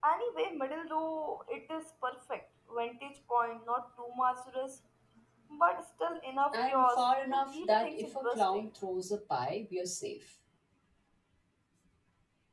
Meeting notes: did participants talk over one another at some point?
Yes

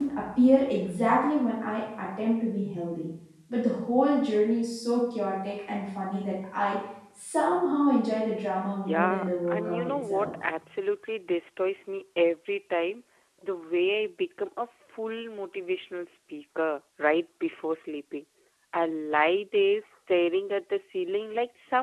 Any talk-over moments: Yes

